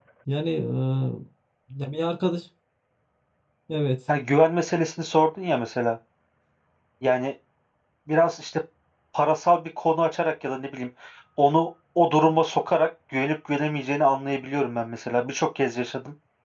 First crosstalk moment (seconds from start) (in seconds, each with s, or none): none